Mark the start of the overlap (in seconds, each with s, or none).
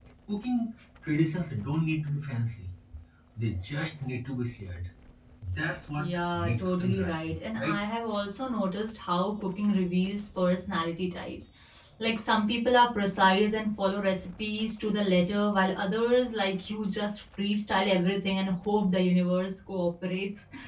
6.0 s